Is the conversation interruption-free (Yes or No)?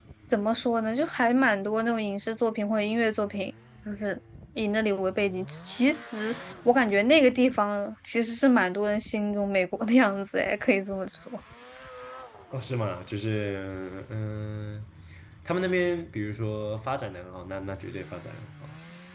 Yes